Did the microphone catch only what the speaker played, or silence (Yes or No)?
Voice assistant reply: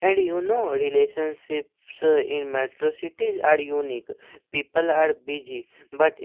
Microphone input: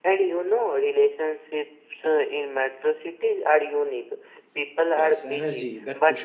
No